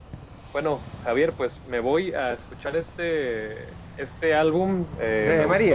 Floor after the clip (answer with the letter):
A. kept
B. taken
A